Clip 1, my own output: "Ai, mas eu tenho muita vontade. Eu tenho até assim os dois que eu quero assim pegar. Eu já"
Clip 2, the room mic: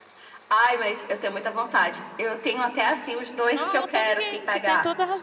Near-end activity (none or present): present